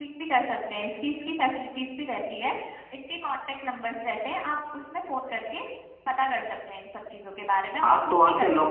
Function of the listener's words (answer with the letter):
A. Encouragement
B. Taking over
B